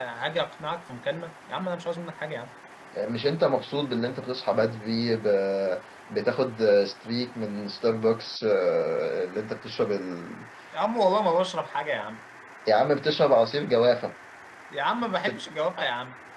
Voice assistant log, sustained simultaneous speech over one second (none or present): none